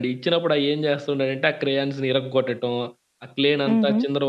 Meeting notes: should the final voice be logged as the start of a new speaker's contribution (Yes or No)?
No